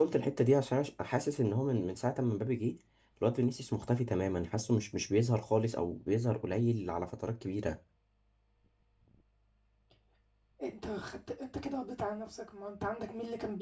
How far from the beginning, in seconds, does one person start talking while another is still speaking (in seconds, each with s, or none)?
none